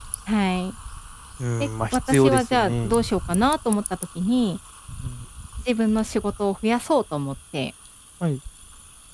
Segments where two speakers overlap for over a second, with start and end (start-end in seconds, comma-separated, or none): 1.6-3.0